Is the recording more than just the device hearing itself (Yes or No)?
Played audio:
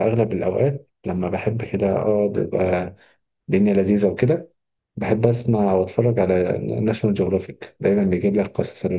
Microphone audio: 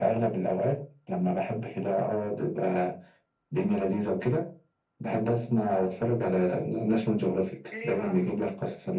Yes